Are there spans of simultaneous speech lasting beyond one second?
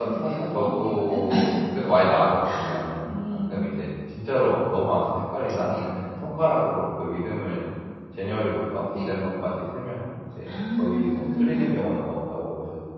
Yes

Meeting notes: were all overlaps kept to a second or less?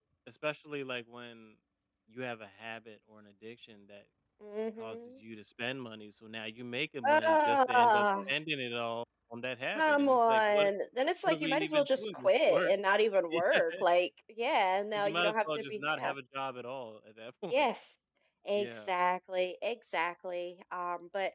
No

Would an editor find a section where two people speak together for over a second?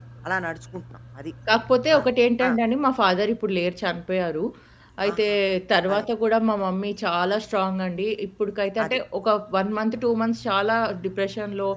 No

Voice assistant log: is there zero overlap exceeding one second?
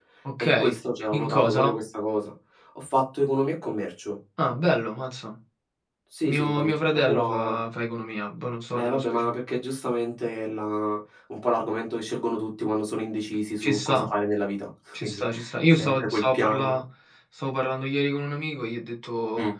No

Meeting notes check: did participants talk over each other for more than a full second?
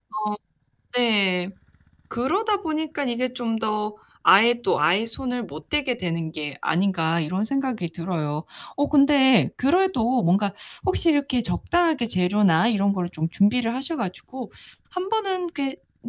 No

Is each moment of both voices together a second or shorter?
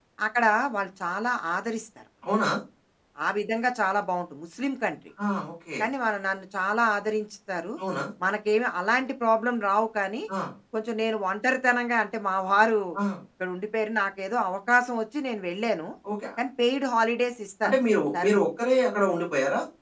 Yes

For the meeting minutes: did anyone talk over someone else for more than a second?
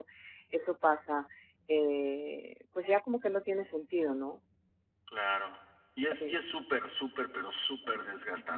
No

